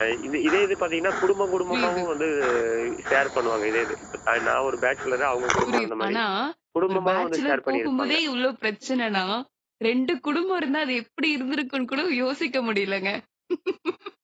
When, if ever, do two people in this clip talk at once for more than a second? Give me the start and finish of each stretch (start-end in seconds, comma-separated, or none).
6.9-8.2